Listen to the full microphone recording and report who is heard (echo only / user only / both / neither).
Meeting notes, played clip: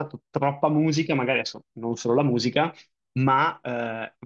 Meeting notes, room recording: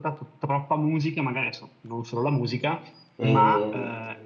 both